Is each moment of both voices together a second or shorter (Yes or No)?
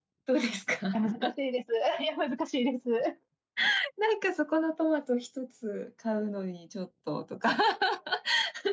Yes